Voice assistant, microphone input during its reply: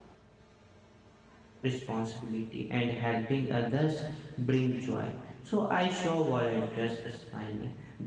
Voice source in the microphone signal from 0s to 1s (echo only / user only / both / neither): neither